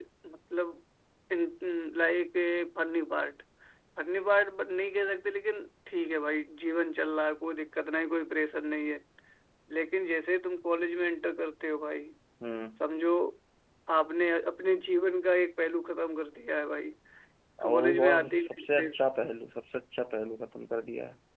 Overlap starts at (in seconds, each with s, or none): 17.6 s